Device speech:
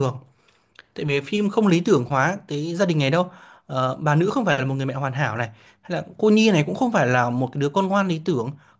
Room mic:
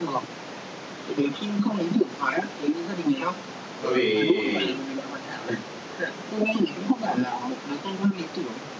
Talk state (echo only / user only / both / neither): both